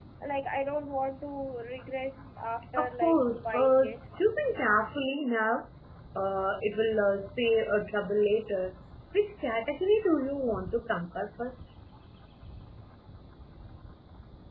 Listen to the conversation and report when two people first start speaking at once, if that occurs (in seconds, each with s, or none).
2.8 s